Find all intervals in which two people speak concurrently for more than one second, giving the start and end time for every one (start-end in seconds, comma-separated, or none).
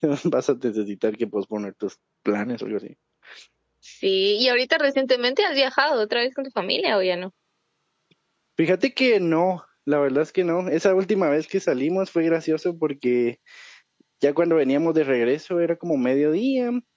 none